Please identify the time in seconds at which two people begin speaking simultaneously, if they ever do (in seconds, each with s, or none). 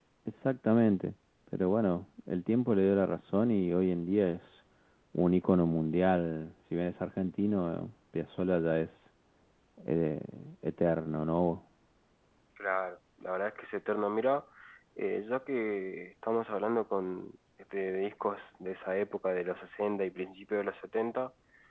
none